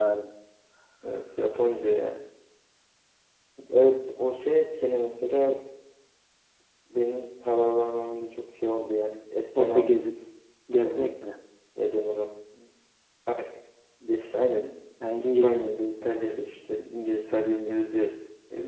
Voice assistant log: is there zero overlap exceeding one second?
Yes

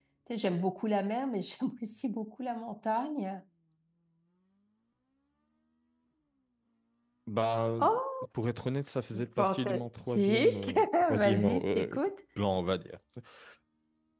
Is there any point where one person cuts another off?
Yes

